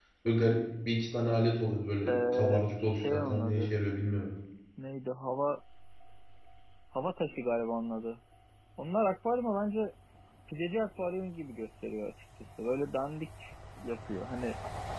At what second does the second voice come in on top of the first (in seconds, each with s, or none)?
2.1 s